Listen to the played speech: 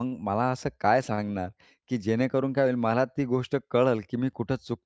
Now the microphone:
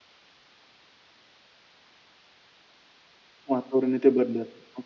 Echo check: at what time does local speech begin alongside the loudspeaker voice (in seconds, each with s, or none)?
3.5 s